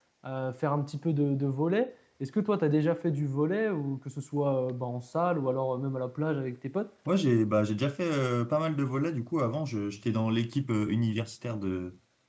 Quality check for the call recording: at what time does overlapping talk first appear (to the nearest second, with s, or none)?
none